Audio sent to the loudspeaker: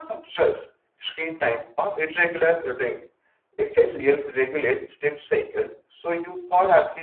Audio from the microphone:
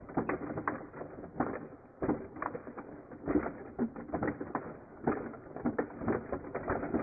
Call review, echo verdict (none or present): none